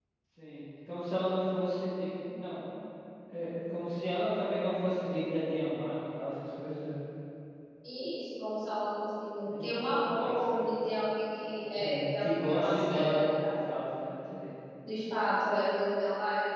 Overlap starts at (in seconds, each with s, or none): 9.5 s